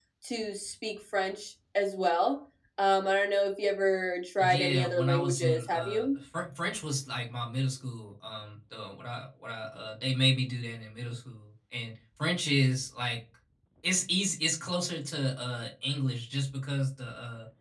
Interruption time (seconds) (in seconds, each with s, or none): 4.4 s